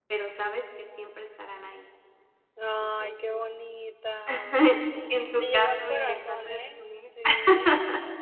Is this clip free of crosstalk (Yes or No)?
No